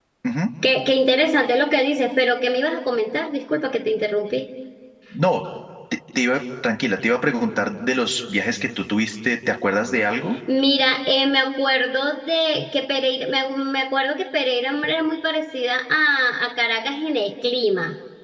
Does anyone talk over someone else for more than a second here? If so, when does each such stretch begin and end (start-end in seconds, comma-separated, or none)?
none